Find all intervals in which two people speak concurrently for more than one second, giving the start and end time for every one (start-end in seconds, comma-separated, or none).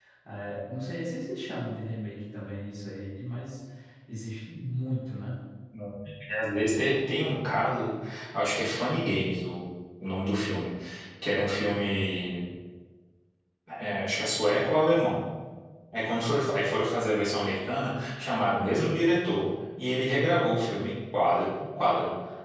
none